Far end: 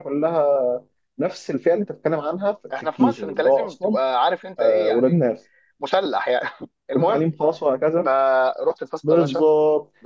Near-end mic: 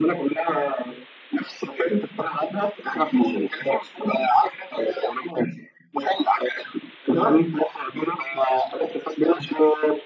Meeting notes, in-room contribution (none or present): none